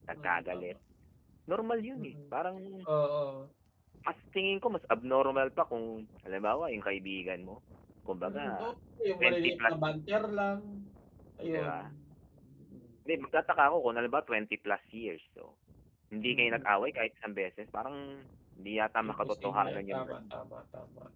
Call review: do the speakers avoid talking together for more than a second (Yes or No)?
No